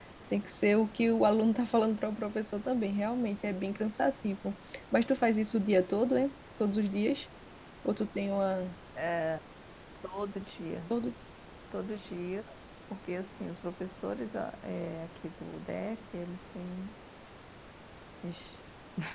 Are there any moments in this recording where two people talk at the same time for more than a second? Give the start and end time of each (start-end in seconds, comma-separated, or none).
none